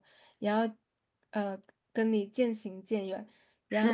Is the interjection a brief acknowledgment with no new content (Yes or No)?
Yes